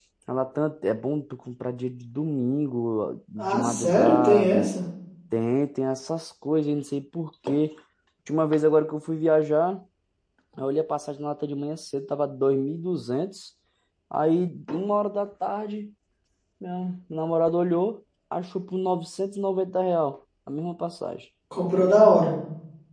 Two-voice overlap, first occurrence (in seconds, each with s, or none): 3.4 s